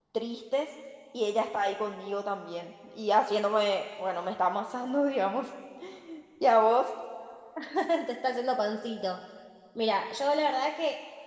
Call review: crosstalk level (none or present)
none